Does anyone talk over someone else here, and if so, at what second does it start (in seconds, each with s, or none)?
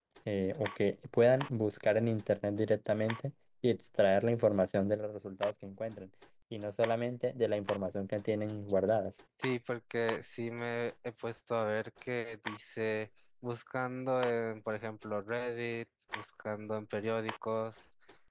none